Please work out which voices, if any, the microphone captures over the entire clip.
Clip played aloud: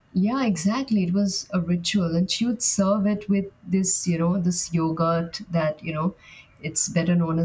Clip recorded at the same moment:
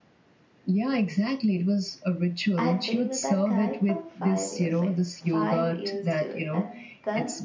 both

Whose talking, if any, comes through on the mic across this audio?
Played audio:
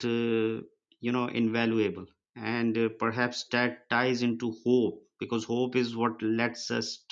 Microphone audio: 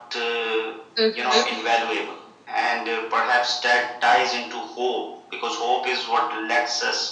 both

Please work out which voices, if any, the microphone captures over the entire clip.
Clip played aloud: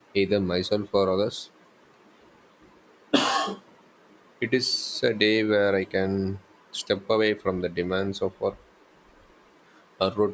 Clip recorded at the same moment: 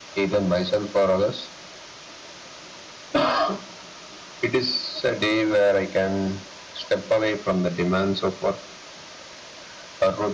echo only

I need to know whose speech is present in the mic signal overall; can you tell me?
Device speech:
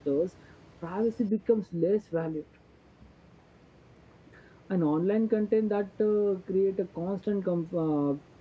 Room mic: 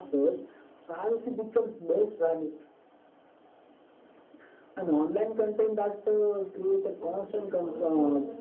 both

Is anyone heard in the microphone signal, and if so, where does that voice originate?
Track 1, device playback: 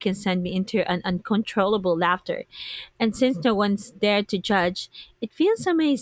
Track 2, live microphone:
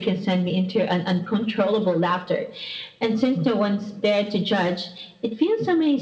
echo only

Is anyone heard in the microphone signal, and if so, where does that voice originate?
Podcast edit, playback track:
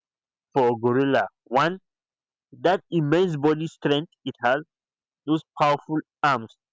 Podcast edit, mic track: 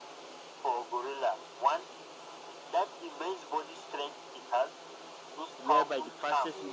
both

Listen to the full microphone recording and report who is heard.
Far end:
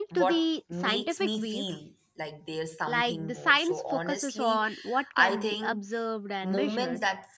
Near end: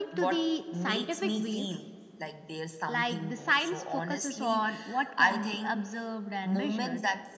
echo only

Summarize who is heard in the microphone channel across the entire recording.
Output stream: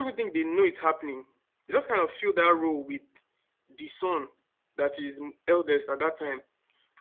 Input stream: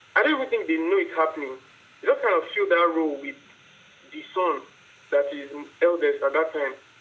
echo only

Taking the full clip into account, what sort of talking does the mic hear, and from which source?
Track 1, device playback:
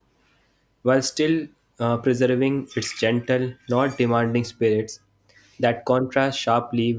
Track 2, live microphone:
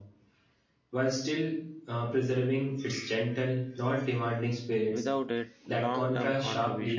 both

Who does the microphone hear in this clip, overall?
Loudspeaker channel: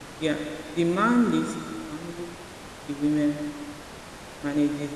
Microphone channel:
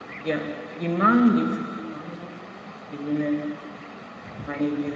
echo only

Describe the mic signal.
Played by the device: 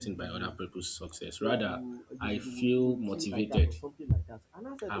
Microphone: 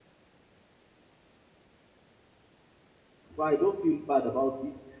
user only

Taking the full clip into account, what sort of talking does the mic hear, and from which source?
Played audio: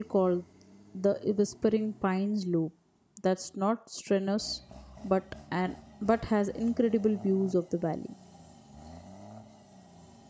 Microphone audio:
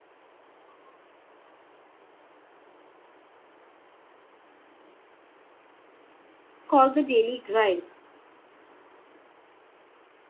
user only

